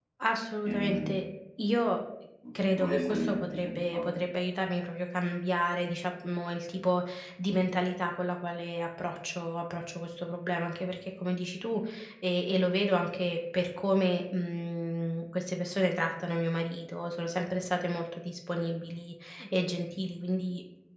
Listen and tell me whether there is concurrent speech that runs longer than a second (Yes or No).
Yes